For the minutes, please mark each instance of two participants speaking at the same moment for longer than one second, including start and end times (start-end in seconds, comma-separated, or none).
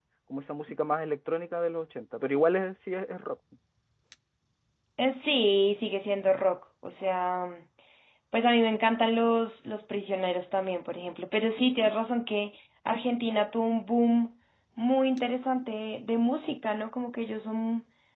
none